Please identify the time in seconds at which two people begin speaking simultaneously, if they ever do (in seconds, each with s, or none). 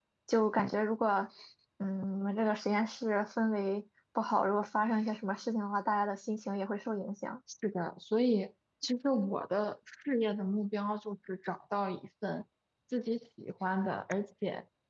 none